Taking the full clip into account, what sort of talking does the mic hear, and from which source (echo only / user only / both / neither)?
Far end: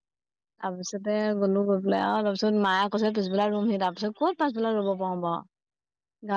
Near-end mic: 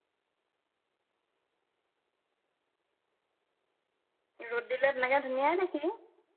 user only